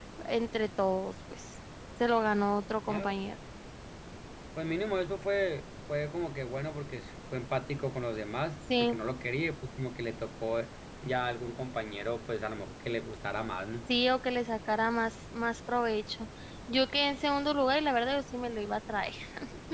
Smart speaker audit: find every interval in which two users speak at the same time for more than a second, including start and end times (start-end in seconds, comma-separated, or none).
none